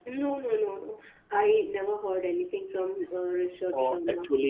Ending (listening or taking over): taking over